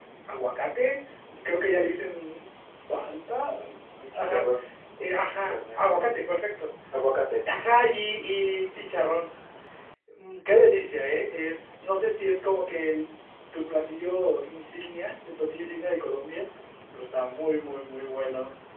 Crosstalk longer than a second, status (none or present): none